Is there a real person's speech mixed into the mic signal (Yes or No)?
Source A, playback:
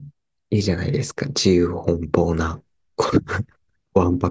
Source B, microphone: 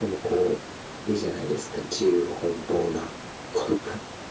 No